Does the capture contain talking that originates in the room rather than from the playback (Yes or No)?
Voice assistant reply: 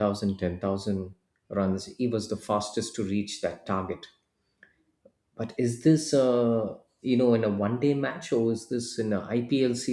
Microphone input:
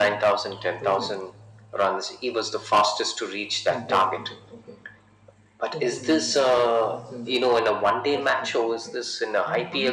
Yes